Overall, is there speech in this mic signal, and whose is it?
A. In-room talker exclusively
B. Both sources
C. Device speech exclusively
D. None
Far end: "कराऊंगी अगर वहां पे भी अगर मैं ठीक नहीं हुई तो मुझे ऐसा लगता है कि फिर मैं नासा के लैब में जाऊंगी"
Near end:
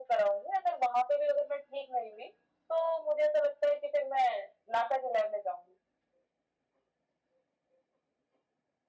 C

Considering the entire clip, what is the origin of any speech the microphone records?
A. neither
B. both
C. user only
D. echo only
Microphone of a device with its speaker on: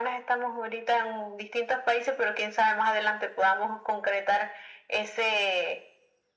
D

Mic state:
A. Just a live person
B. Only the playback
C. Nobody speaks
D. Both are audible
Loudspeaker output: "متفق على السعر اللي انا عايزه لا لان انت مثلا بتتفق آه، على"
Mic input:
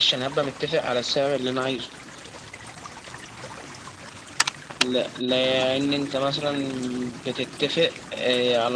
B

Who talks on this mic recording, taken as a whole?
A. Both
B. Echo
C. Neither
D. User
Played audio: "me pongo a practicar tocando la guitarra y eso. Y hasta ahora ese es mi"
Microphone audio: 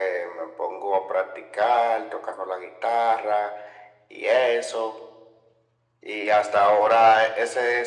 B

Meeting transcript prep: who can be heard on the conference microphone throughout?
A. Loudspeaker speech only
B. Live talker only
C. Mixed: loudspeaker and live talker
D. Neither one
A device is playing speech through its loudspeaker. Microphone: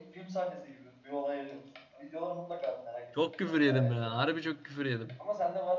C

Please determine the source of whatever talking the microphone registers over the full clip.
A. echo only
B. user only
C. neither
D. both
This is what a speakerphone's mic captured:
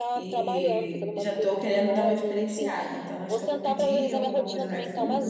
D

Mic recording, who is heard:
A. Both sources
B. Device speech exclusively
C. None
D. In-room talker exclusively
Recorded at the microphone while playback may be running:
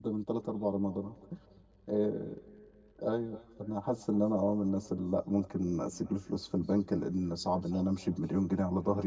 D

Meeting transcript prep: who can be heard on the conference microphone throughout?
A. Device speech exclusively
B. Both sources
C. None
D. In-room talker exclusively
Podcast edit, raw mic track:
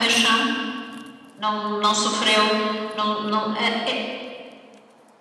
A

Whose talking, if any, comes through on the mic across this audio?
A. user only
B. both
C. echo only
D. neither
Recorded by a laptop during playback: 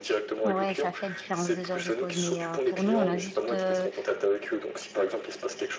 B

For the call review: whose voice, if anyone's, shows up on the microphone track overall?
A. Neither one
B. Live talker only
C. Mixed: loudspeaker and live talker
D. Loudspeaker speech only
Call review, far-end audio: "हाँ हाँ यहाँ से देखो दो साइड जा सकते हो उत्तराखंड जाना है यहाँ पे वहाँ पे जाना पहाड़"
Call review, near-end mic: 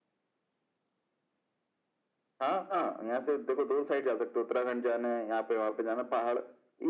D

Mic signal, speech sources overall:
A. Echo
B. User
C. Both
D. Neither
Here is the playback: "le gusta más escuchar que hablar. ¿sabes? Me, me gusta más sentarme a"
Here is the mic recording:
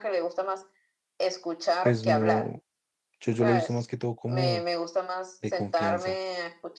C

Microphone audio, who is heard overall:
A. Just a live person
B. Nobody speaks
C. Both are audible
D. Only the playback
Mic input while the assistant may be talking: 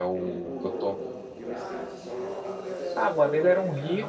C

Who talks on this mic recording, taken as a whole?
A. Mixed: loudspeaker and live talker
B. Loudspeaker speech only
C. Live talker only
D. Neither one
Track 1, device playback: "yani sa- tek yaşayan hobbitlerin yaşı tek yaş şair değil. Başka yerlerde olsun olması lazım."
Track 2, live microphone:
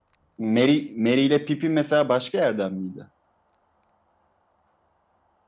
C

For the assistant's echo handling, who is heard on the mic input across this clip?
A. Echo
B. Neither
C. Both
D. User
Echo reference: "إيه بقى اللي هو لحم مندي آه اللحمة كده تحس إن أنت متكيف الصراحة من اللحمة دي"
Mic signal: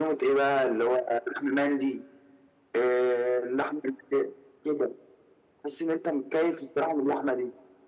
A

